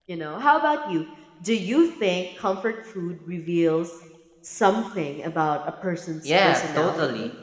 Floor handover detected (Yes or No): Yes